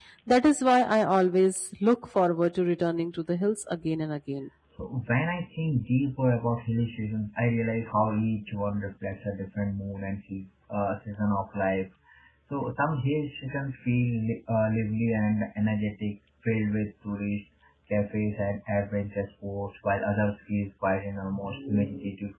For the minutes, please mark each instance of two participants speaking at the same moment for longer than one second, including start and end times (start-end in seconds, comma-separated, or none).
none